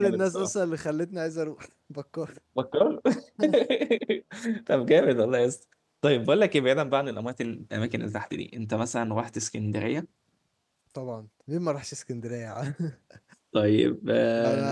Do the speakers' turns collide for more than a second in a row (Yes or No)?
No